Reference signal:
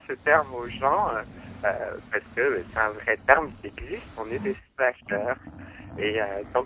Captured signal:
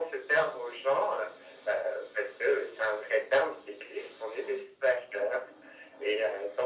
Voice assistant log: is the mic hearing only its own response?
Yes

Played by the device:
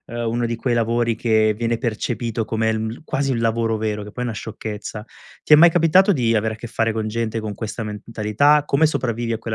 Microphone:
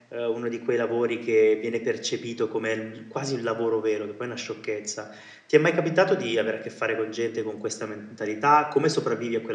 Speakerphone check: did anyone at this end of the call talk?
No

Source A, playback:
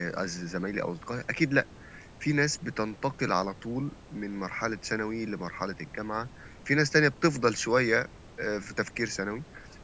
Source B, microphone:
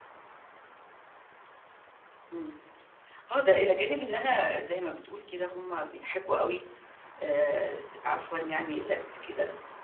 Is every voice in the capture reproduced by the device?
No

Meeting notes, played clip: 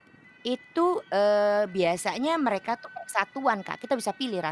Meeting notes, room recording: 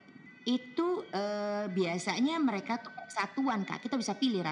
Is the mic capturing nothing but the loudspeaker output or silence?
Yes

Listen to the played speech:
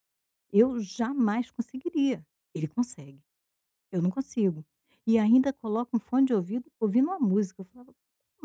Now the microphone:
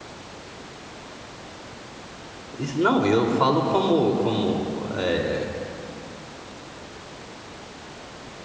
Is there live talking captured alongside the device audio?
Yes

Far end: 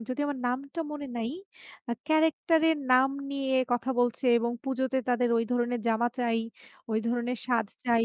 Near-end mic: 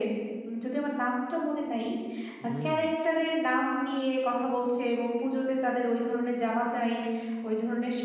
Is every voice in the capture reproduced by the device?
No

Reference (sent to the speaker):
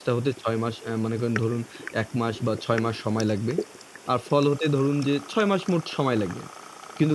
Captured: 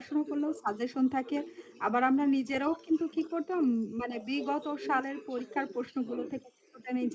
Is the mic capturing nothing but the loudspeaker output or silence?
No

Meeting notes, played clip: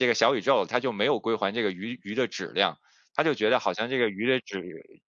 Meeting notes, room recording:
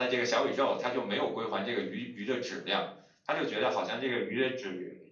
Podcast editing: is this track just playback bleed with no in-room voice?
Yes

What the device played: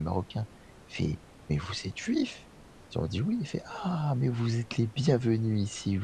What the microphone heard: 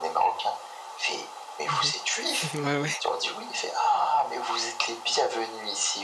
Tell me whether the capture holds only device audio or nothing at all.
No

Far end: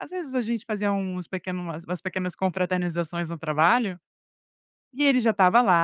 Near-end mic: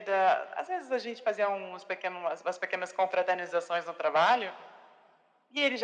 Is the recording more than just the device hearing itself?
No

